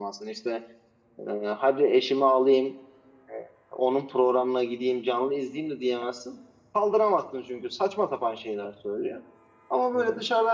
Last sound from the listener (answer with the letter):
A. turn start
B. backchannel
B